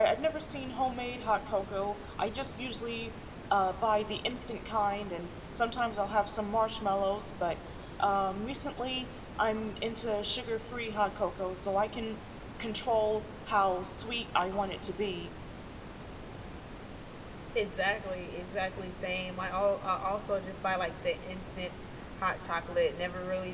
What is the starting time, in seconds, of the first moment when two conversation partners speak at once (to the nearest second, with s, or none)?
none